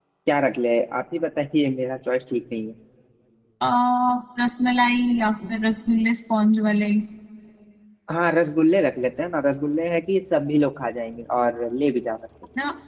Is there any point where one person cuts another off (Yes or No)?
No